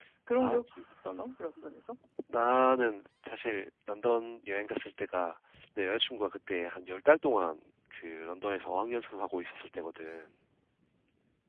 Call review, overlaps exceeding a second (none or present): none